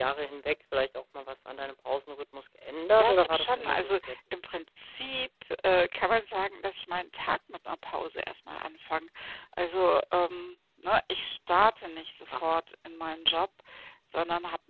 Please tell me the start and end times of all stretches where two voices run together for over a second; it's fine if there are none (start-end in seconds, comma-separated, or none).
3.0-4.2